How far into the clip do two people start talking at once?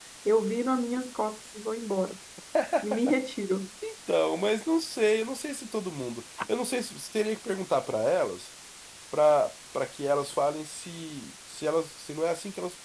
none

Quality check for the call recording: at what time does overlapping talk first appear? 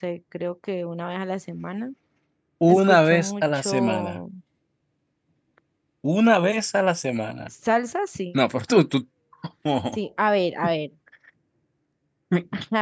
3 s

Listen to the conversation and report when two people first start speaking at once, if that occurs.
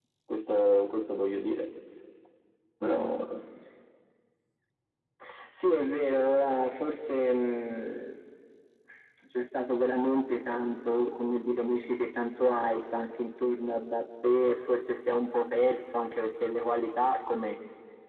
none

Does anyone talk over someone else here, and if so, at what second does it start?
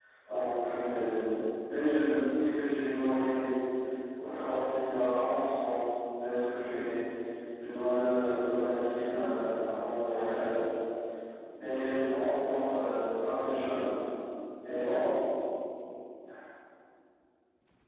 none

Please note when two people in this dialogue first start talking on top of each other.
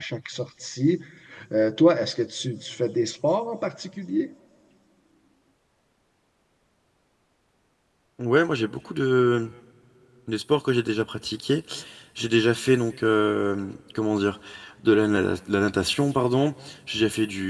none

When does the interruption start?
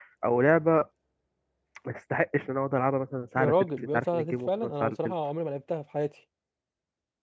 3 s

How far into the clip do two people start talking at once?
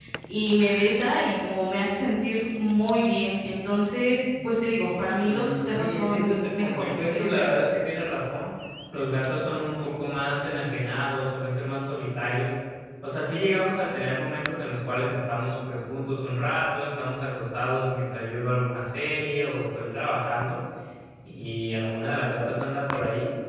5 s

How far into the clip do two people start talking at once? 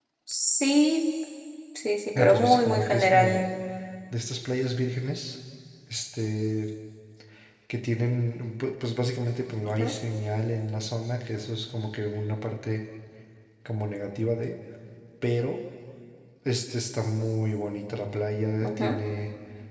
2 s

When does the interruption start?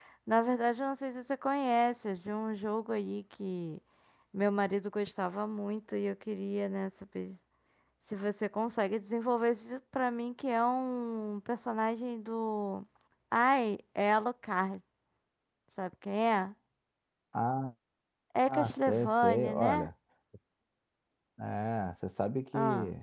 18 s

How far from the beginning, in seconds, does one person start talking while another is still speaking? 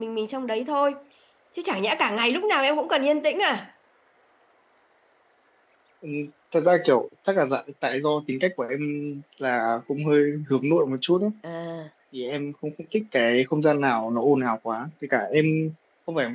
none

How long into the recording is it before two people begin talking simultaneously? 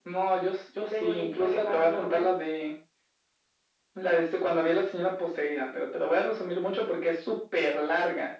1 s

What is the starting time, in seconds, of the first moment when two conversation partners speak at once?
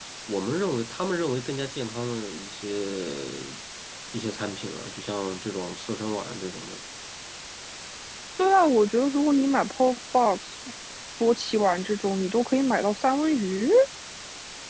none

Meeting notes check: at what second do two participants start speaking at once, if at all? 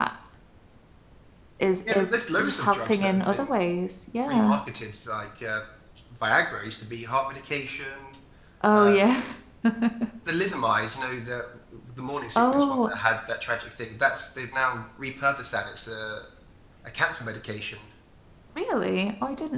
2 s

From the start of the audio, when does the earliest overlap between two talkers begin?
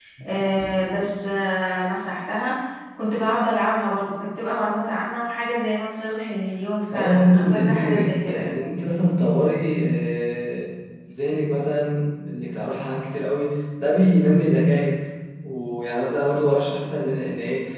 7 s

